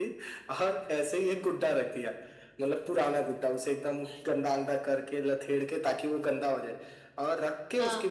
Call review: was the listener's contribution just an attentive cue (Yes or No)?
Yes